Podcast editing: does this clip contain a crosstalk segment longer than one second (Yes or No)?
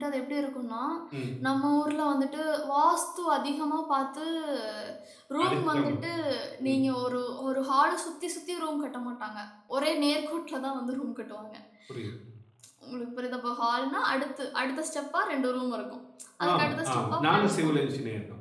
Yes